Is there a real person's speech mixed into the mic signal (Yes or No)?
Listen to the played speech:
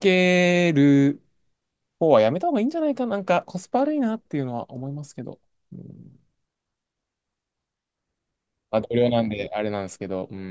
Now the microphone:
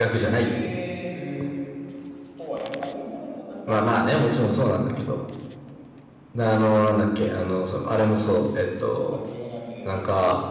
Yes